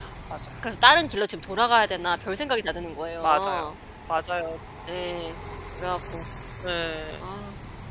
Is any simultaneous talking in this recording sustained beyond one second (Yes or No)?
No